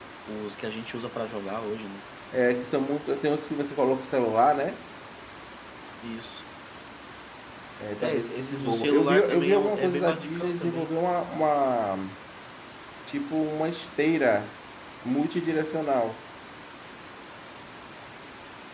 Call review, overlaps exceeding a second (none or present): present